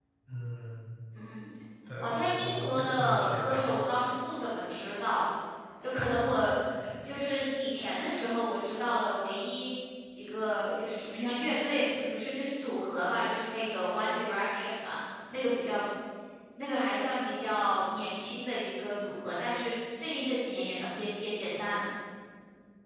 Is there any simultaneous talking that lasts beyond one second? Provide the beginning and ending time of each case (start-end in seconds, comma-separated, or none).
2.0-3.6